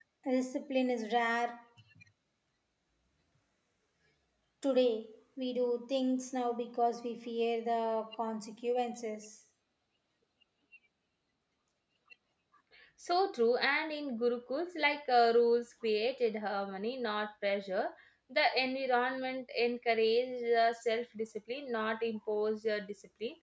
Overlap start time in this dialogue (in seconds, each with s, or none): none